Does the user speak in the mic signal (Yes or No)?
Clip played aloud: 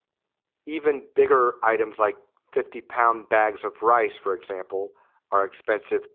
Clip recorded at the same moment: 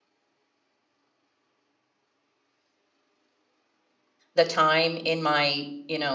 Yes